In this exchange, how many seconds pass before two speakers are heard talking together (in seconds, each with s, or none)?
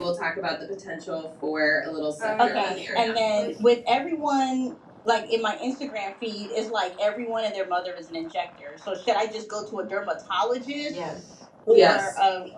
2.2 s